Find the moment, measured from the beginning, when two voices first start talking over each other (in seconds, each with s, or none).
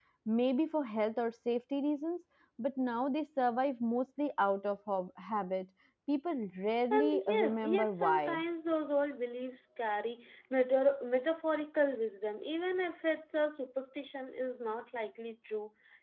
6.9 s